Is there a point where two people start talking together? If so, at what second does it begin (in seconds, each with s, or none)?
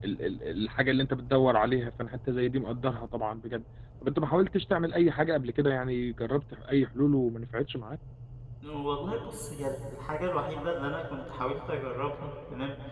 none